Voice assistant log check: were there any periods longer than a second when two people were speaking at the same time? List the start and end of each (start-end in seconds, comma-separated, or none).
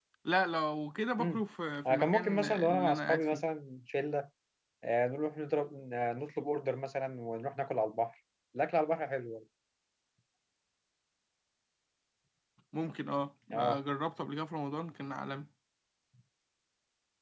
1.8-3.4